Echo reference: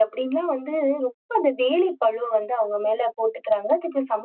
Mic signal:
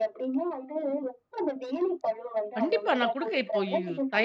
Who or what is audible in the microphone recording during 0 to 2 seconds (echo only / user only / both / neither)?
echo only